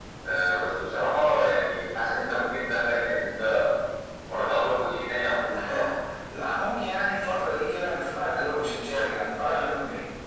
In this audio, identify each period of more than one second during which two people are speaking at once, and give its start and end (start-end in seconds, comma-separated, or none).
none